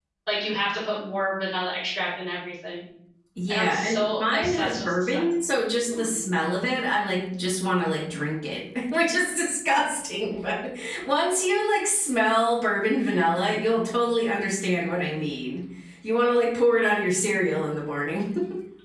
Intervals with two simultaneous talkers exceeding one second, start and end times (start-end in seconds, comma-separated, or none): 3.5-5.3